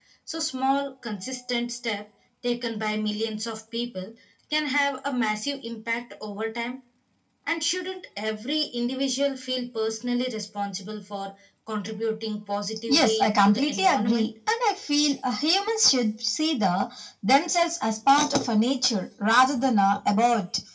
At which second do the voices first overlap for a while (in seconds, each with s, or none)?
12.9 s